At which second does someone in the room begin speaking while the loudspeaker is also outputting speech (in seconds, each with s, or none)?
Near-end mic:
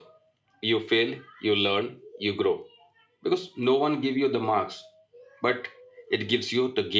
none